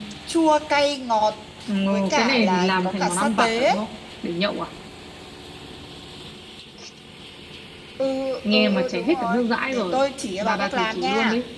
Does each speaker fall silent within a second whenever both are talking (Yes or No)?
No